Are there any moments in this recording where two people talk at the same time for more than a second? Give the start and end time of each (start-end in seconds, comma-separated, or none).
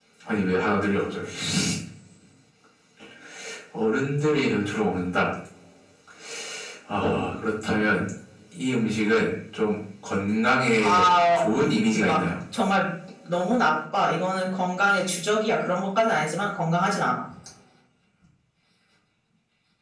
10.8-12.2